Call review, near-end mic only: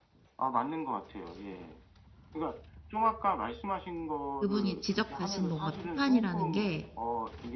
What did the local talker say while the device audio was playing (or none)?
그분이 지적하신 뭔가 비판이라는 게